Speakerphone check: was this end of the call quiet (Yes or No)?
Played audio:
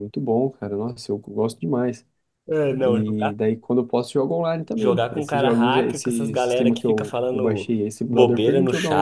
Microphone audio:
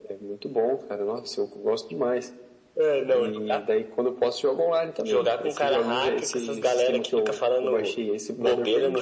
Yes